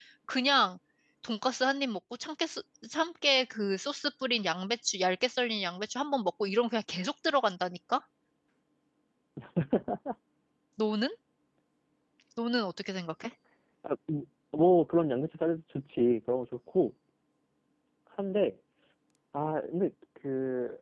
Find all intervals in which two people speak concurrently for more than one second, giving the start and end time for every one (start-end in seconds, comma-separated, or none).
none